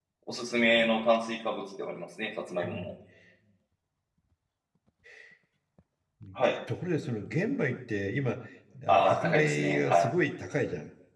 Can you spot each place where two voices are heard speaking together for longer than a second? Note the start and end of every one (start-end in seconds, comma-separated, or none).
8.9-10.2